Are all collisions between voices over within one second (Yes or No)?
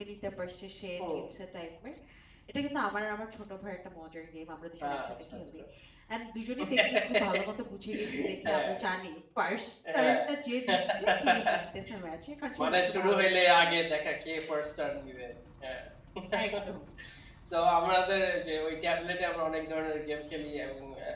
No